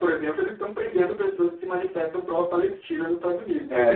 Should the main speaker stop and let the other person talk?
Yes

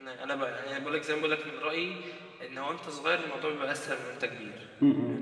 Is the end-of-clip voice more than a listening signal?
Yes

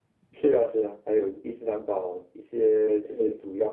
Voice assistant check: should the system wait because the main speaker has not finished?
Yes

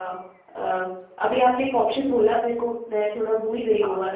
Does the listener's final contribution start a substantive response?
Yes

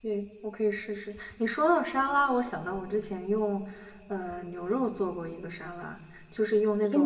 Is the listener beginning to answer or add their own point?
Yes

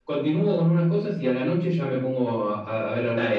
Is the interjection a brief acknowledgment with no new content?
No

